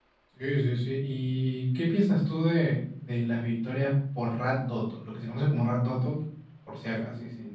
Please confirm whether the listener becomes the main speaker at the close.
Yes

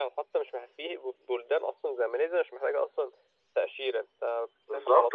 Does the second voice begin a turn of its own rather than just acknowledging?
Yes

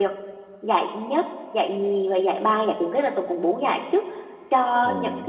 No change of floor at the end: Yes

